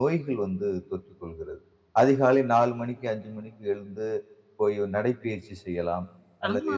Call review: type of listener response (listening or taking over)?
taking over